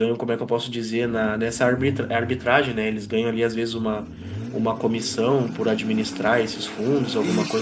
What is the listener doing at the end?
taking over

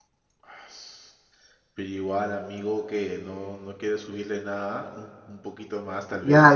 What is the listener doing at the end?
taking over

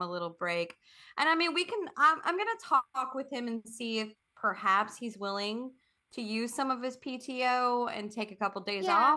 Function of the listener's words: taking over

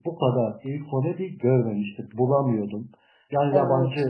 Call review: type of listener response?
listening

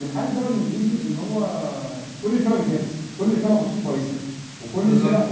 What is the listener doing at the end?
listening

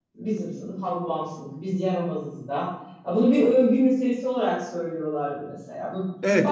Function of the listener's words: taking over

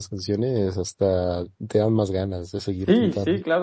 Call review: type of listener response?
taking over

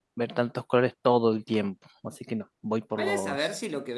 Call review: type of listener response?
taking over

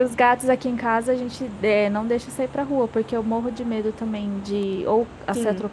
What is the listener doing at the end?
listening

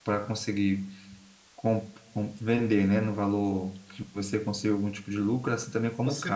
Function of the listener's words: taking over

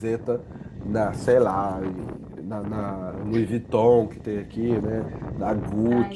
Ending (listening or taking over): listening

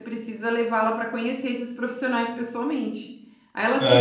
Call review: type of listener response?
listening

